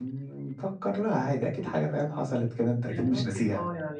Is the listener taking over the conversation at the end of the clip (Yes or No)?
Yes